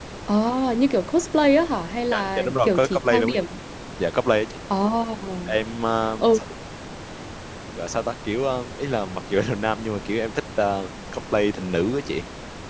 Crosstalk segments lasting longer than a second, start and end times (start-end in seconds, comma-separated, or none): 2.1-3.4